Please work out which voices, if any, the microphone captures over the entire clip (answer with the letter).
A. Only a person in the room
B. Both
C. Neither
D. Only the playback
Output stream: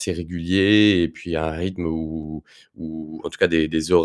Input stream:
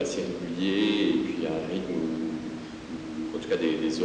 D